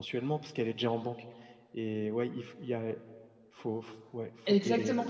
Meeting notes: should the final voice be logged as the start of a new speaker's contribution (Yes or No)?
Yes